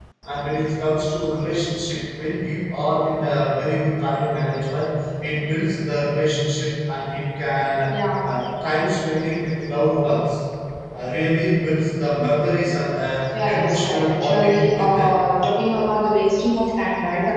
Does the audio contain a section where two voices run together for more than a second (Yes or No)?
Yes